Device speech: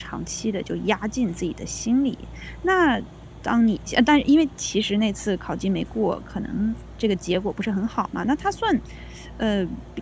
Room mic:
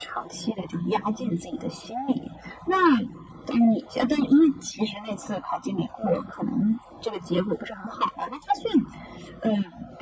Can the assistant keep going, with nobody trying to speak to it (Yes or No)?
Yes